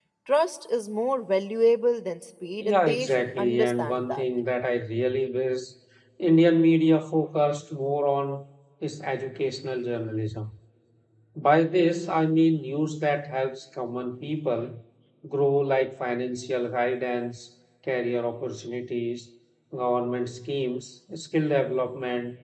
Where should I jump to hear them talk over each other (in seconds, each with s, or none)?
2.6 s